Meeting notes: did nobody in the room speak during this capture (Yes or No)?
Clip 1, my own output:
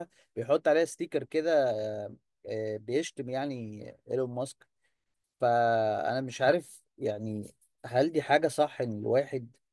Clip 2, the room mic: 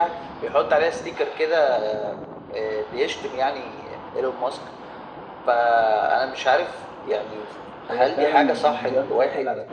No